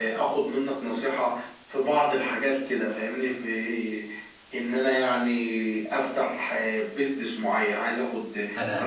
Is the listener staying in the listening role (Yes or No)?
Yes